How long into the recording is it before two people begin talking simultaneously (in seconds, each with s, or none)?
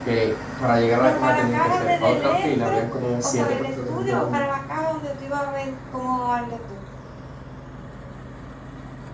1.0 s